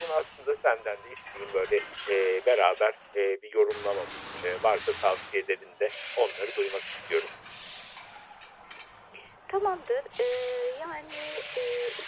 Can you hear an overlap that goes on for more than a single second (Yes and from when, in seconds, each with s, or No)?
No